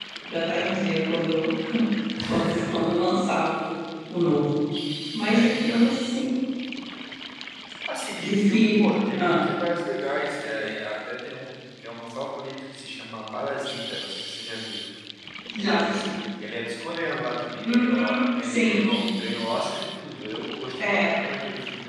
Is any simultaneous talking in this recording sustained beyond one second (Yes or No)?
Yes